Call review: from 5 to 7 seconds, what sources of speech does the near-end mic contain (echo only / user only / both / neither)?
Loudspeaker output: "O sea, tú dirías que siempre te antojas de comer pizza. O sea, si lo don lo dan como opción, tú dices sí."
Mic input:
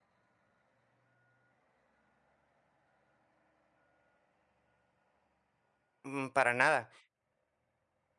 user only